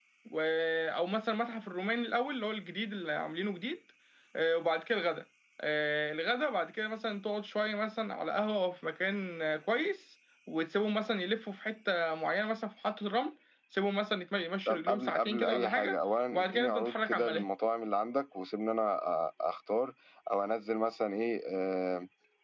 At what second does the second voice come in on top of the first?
15 s

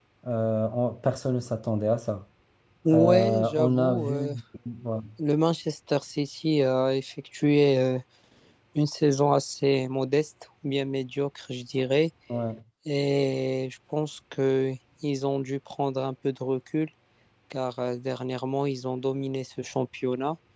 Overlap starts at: 3 s

